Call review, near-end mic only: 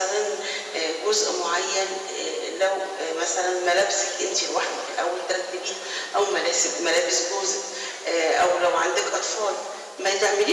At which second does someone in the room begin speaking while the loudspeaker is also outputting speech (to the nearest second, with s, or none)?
none